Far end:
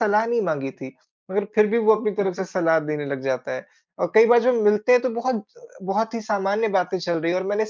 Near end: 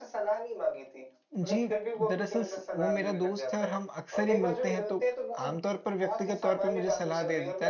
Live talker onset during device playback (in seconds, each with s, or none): 1.4 s